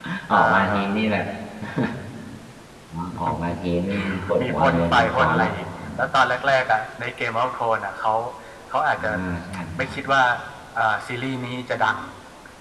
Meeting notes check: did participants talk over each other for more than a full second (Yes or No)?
Yes